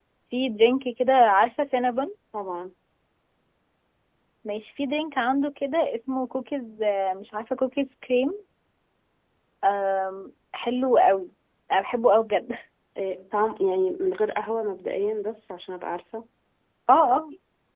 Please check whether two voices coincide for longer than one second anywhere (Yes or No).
No